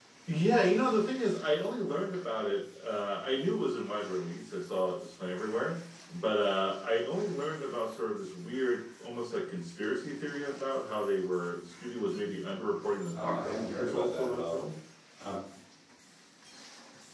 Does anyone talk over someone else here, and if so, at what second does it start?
13.1 s

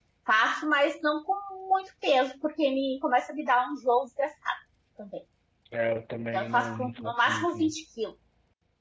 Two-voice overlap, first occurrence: 6.3 s

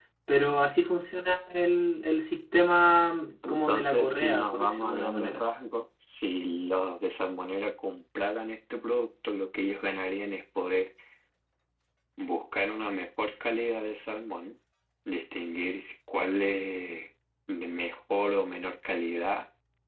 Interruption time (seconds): 3.4 s

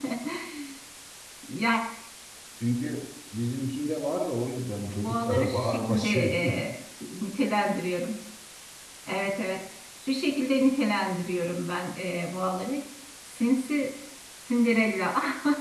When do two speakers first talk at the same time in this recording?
4.9 s

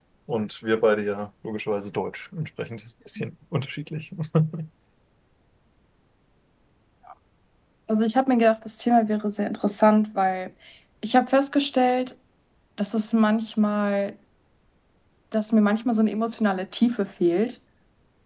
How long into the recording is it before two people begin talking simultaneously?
none

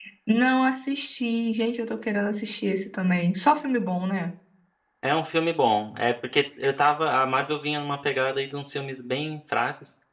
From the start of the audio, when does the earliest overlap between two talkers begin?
none

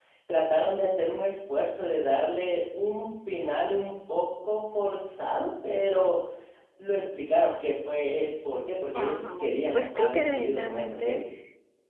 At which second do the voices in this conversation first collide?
8.9 s

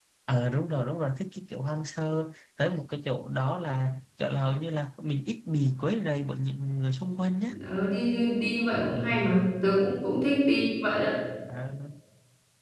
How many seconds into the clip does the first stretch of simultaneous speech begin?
none

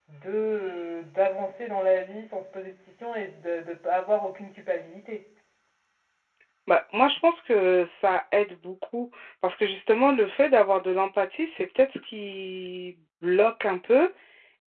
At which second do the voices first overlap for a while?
none

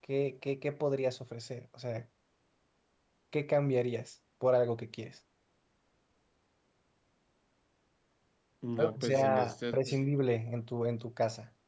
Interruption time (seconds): 8.8 s

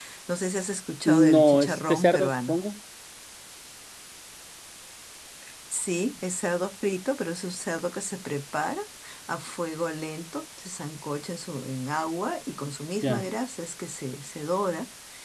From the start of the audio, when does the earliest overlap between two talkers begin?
1.1 s

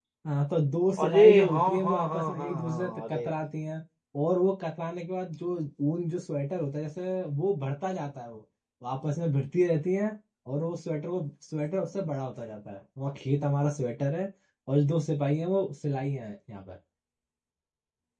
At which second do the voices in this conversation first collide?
1.0 s

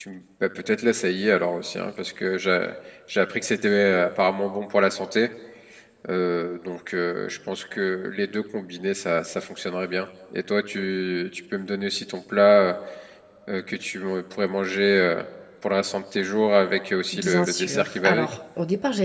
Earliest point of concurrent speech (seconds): 17.1 s

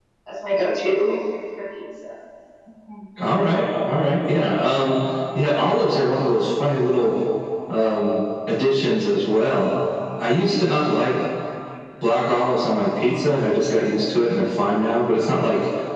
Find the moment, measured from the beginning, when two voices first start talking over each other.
none

